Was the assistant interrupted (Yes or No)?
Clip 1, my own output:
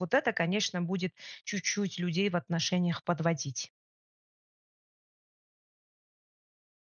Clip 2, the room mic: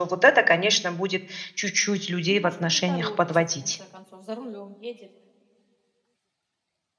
Yes